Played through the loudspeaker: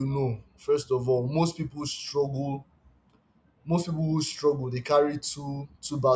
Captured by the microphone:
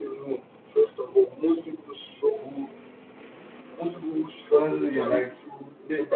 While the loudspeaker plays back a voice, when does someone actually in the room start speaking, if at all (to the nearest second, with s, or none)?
5 s